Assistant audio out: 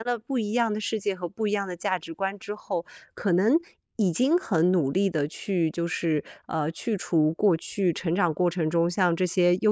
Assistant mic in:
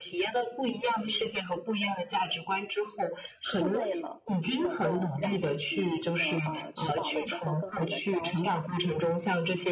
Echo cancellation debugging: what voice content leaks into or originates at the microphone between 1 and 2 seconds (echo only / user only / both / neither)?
echo only